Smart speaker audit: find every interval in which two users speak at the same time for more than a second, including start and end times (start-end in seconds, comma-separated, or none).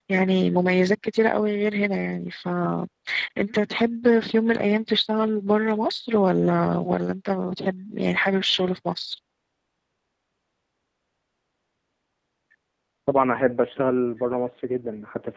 none